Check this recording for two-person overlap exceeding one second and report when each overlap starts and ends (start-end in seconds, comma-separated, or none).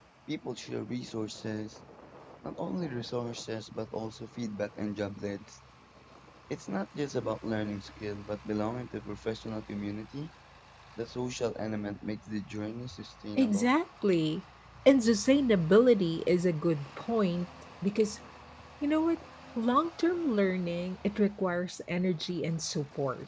none